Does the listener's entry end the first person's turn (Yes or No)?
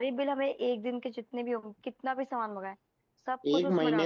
Yes